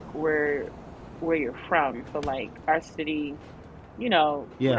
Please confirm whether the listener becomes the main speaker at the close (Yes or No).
No